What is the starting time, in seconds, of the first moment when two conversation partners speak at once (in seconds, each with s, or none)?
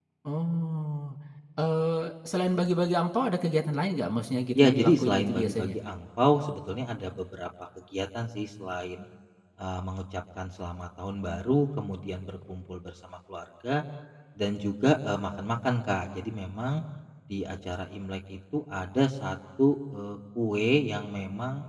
4.6 s